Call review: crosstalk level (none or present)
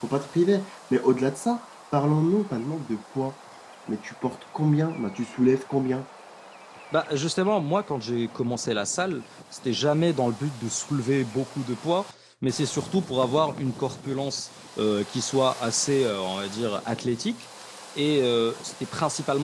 none